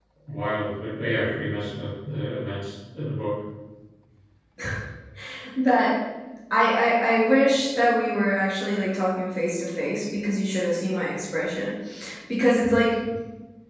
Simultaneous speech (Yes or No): No